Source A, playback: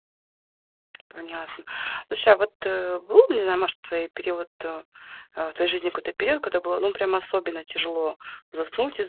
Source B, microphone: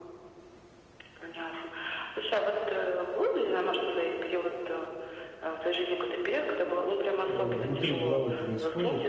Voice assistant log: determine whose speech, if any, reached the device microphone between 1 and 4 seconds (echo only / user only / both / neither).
echo only